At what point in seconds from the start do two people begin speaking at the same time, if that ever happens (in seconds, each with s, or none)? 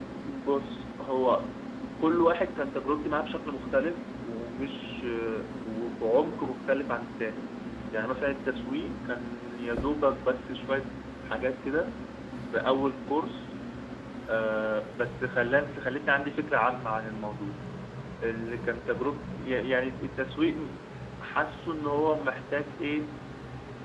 none